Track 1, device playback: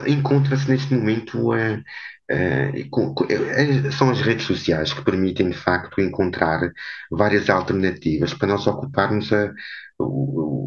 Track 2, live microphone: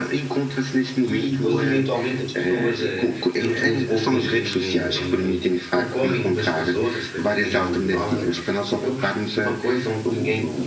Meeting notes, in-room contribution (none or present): present